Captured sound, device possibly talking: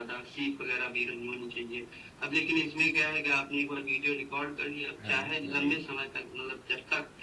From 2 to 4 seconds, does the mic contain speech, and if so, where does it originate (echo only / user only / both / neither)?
echo only